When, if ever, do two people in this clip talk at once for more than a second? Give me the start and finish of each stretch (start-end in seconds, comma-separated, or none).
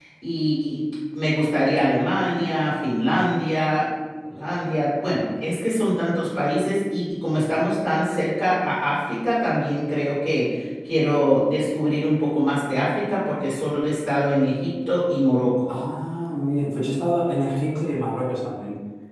none